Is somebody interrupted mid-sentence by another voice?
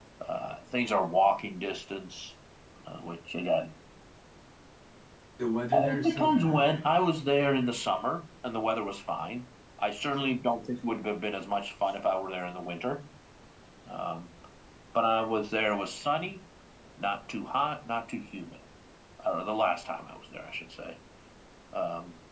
Yes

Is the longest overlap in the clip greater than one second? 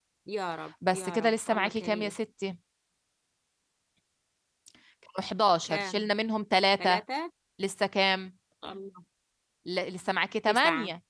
Yes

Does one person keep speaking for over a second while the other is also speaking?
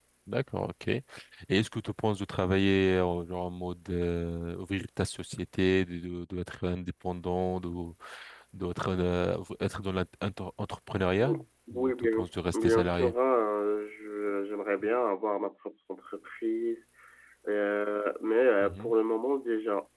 Yes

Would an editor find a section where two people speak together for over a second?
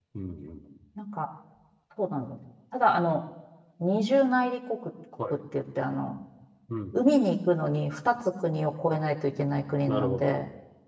No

